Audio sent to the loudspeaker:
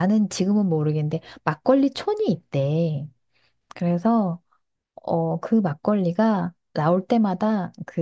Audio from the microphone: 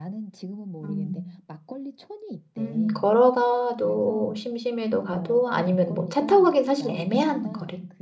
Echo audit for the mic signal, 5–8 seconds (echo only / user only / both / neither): both